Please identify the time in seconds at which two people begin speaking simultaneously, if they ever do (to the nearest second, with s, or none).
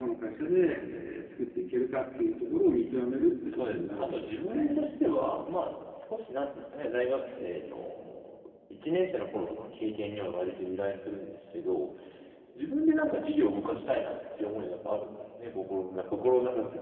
3 s